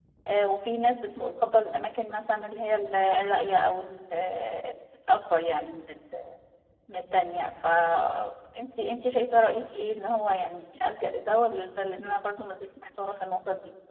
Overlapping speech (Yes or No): No